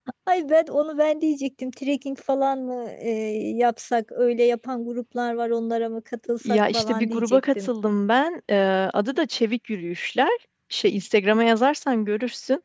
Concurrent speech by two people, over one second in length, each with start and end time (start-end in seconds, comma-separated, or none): 6.5-7.7